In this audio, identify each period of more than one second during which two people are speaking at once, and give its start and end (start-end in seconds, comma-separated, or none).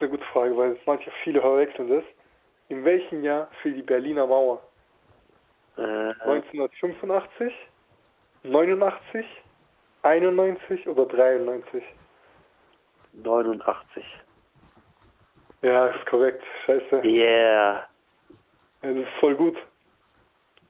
none